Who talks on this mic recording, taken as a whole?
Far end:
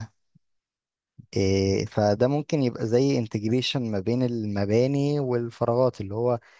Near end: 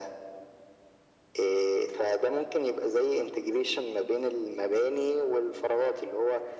echo only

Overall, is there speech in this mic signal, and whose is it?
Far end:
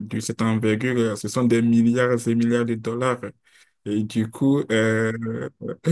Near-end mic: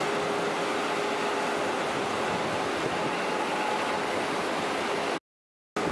neither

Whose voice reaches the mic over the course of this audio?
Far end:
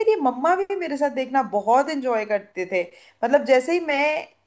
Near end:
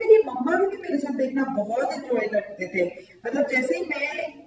echo only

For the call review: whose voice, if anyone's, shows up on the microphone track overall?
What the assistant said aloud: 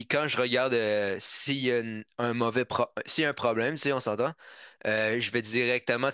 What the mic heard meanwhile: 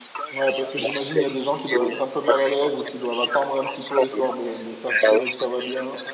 both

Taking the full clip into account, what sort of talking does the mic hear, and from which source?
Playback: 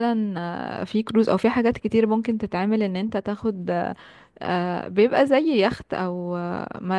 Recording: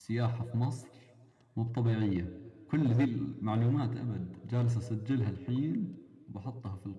user only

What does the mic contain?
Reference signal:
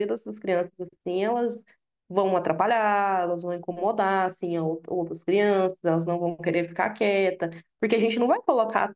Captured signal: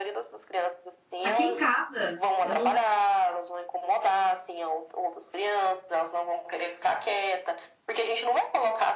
both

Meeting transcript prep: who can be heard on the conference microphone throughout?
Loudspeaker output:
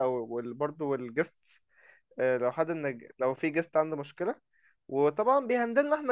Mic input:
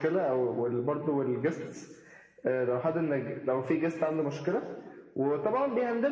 echo only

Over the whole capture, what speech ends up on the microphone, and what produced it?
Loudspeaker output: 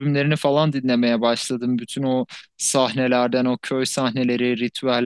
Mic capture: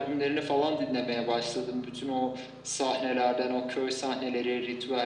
echo only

